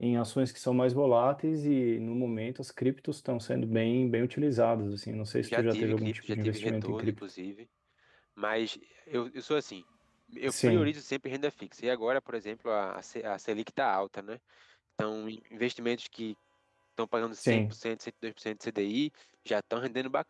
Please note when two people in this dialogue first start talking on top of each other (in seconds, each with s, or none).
5.4 s